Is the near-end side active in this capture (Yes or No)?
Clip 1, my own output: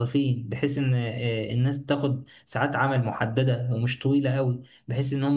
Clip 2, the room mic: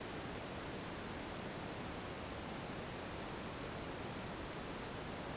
No